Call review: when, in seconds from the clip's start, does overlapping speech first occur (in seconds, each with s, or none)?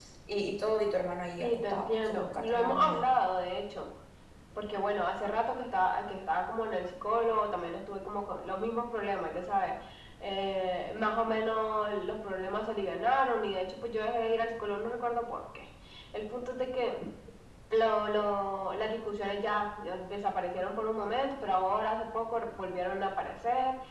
1.4 s